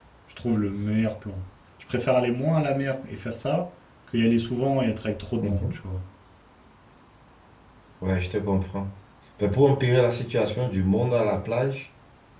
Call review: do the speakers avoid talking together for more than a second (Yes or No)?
Yes